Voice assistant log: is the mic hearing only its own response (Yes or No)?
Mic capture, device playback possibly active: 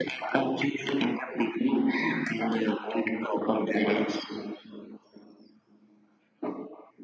Yes